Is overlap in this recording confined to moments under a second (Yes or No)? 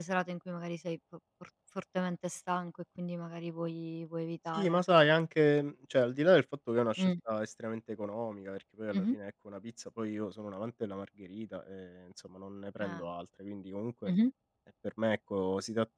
Yes